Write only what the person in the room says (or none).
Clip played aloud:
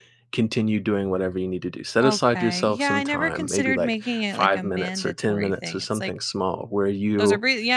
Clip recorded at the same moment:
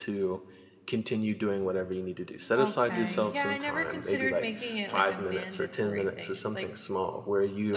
Mm,